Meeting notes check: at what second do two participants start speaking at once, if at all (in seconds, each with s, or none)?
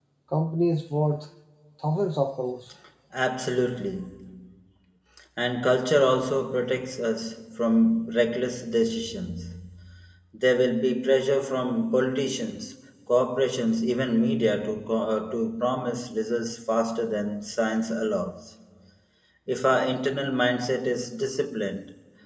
none